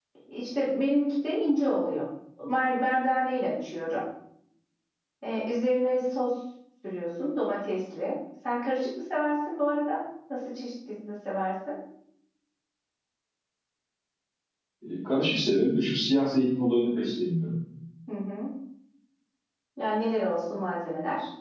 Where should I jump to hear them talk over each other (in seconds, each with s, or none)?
none